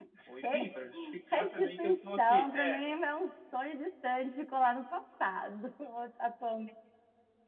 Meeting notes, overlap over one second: present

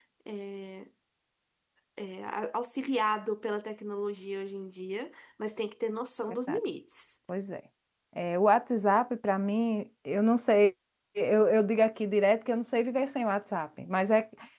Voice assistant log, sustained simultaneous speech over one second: none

